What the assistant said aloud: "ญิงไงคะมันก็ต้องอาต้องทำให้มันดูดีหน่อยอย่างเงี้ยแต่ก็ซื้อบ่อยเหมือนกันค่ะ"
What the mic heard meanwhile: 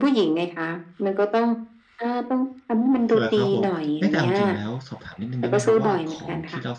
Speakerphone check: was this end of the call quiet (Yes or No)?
No